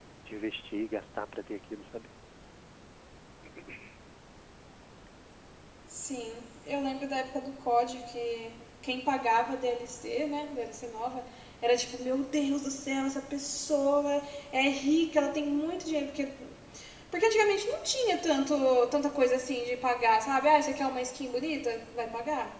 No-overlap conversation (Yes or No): Yes